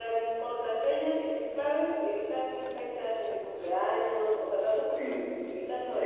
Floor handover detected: Yes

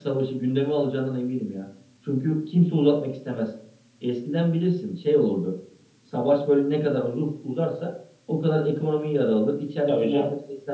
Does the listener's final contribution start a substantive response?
No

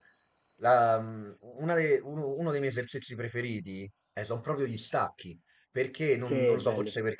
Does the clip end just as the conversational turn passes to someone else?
No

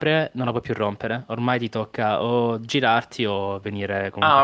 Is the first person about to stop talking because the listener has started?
Yes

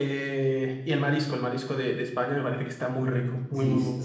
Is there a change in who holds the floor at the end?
Yes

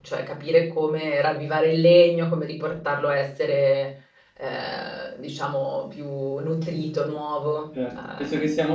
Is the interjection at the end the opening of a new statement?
Yes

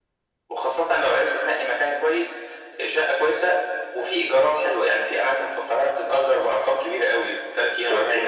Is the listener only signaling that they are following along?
No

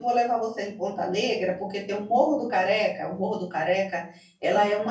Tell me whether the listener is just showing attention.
Yes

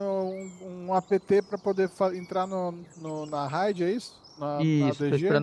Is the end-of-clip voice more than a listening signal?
Yes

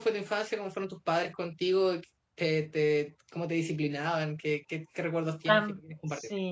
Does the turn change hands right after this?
Yes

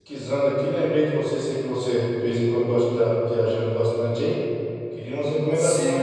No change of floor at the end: Yes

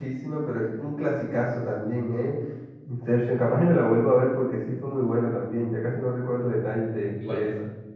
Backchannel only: No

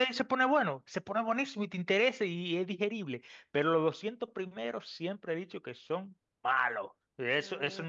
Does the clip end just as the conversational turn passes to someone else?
No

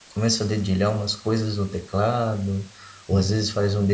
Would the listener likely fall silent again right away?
Yes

